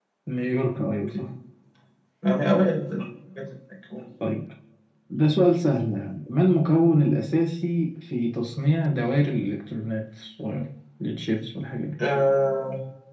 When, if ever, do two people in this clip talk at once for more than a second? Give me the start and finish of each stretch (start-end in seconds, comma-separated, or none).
none